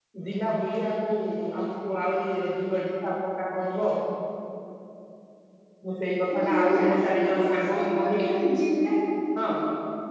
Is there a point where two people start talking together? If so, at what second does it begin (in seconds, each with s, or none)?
6.3 s